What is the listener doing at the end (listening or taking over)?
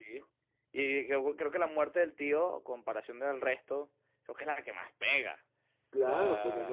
taking over